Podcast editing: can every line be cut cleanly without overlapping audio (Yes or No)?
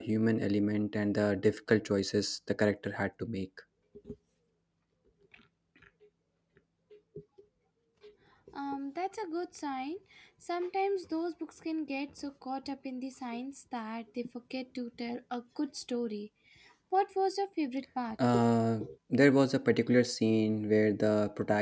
Yes